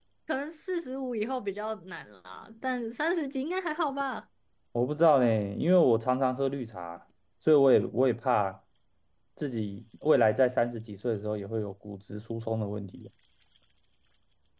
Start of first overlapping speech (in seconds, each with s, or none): none